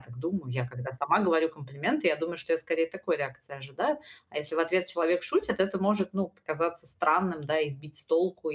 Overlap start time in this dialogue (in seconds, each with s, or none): none